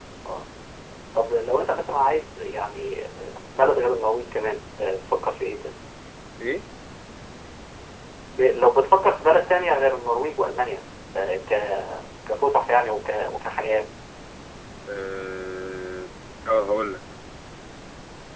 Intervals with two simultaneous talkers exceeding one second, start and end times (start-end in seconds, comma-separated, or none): none